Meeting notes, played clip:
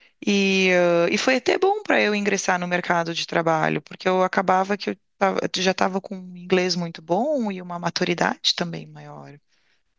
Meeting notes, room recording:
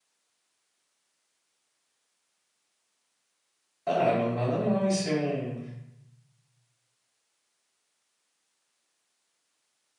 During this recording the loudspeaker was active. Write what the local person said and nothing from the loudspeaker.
Ah, não, nada mal em ser um.

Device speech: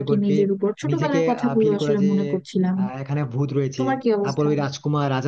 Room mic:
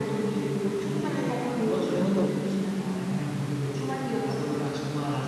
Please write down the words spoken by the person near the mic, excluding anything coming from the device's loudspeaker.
তখন মনে হতো

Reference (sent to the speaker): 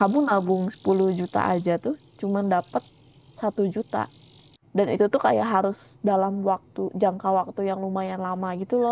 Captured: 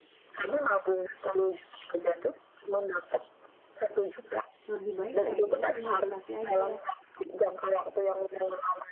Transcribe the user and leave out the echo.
lebih baik kayak ya udah investasi aja

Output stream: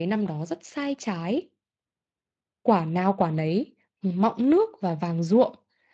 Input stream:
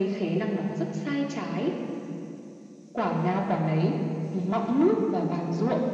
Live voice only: none

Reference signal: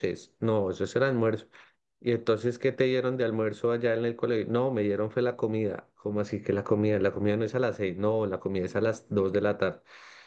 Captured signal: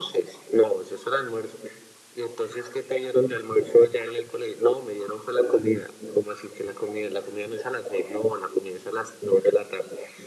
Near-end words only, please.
none

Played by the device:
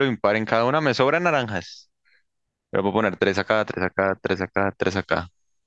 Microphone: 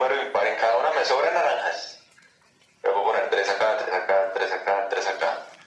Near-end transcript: none

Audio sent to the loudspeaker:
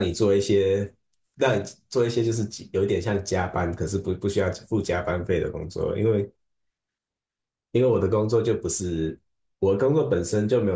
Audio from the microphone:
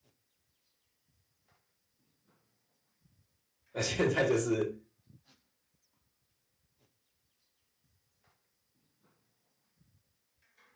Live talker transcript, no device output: 那现在就是

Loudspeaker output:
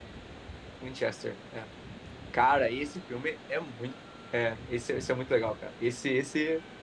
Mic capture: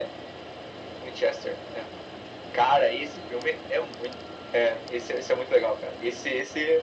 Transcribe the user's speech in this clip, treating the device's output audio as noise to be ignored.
none

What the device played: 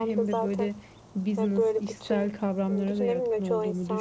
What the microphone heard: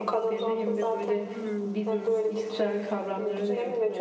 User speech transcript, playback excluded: Hmm.

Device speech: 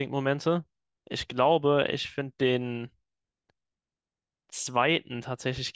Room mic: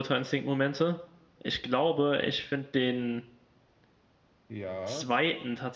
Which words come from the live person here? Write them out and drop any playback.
ja.

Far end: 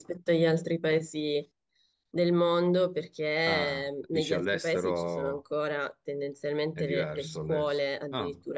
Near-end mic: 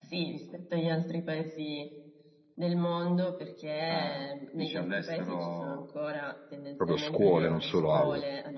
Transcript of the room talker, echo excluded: proprio scuole, non solo aule.

